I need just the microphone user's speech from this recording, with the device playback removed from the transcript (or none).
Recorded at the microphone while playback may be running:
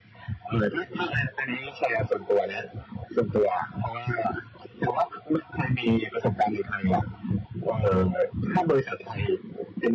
none